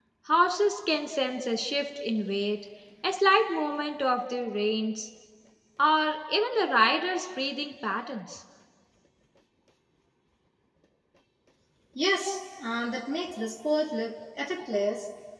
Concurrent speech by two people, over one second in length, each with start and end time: none

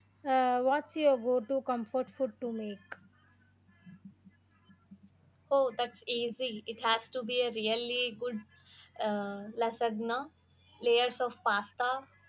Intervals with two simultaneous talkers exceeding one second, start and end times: none

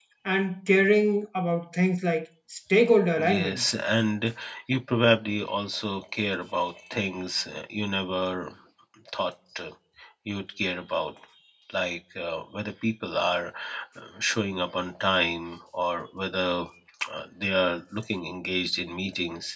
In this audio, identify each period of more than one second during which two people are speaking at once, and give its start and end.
none

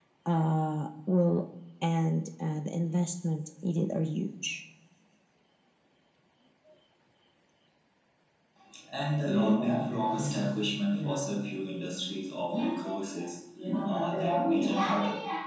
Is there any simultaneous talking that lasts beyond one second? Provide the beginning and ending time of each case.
none

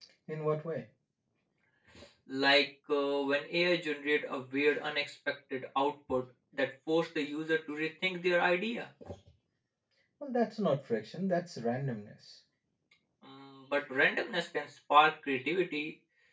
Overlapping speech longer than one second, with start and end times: none

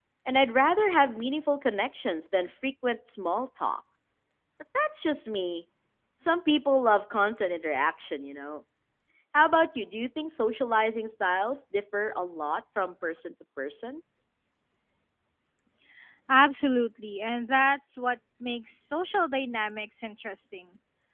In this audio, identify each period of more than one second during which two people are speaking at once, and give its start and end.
none

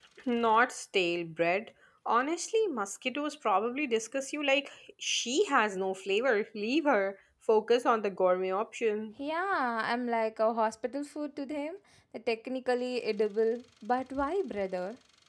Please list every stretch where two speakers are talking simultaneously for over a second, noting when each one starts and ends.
none

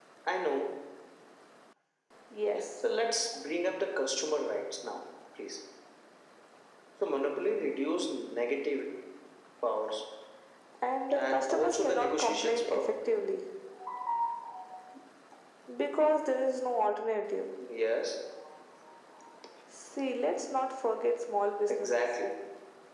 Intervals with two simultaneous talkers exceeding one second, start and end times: 11.1-12.9

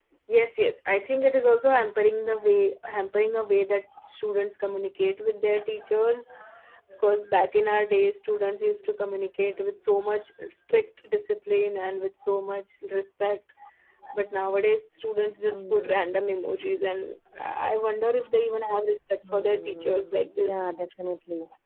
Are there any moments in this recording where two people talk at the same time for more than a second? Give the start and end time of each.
19.3-20.6

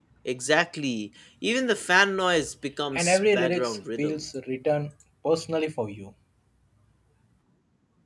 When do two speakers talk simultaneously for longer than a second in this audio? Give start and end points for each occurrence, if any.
2.9-4.2

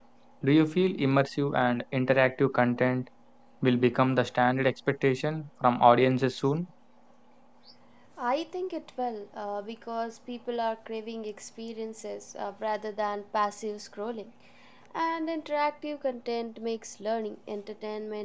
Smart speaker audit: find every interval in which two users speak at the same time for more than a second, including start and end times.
none

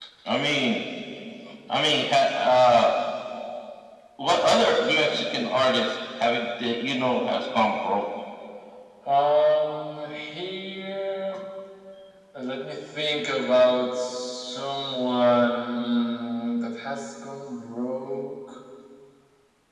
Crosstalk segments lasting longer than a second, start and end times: none

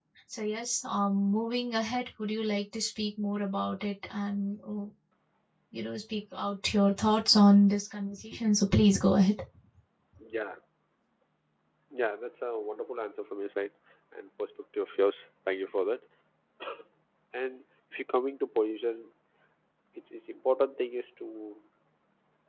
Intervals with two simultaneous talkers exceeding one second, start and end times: none

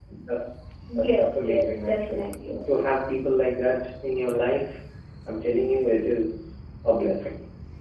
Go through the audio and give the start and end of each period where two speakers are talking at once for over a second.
1.0-2.2

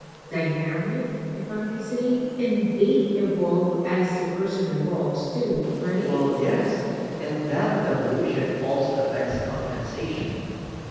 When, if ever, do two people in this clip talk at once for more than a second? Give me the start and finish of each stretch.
none

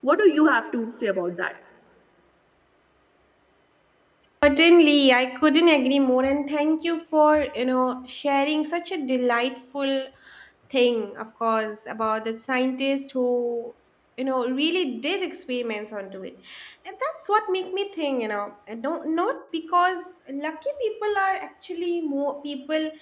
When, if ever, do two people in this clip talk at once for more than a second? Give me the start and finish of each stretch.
none

